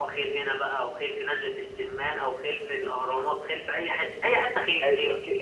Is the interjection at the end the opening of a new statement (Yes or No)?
Yes